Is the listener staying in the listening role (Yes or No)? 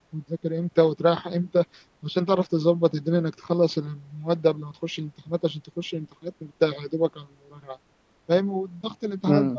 Yes